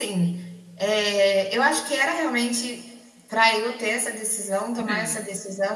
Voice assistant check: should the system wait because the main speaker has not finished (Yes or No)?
Yes